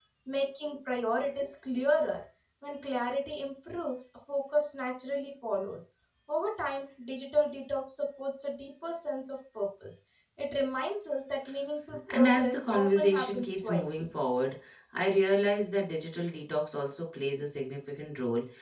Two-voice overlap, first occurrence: 12.1 s

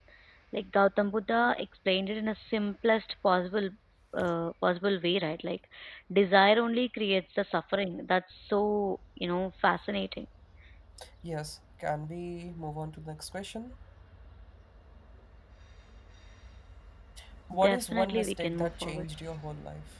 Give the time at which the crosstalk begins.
17.6 s

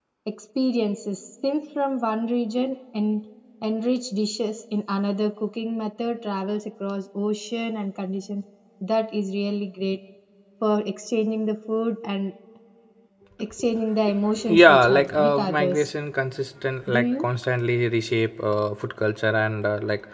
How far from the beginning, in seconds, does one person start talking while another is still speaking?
14.6 s

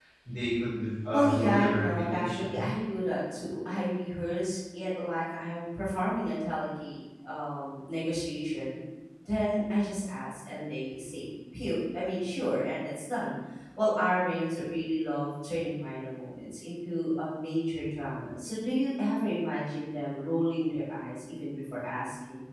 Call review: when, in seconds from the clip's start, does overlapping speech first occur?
1.1 s

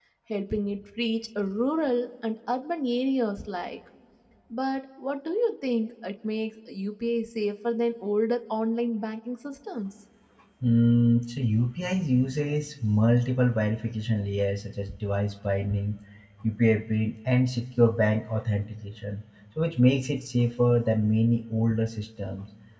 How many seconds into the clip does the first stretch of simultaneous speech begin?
none

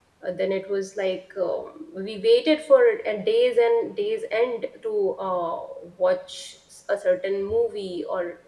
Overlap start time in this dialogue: none

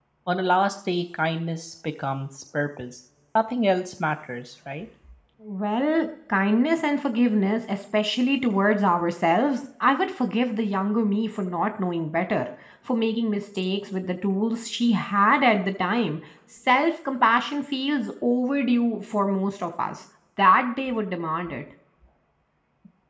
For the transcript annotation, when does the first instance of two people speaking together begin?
none

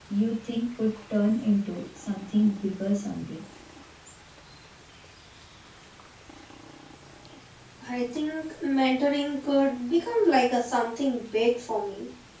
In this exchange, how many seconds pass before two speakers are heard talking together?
none

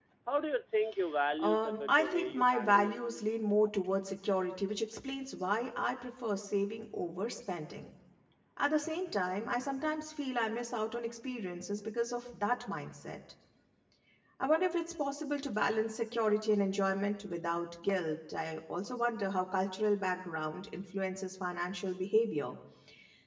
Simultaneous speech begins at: 1.4 s

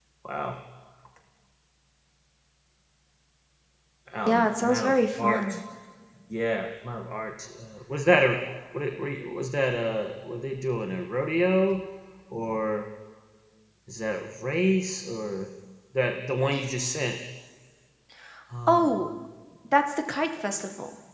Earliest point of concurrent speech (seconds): 4.3 s

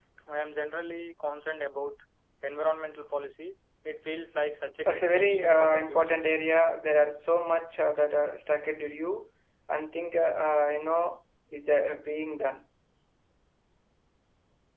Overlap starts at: 4.8 s

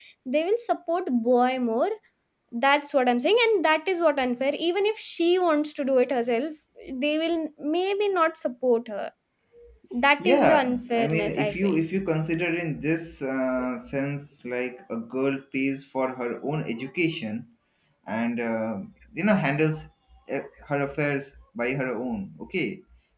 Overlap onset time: 10.2 s

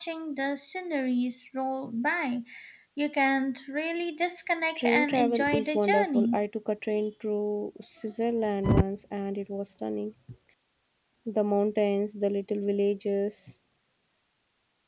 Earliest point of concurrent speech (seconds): 4.8 s

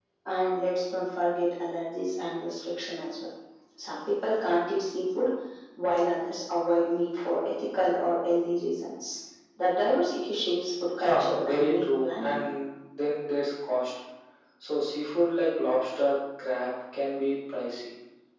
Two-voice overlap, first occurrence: 11.0 s

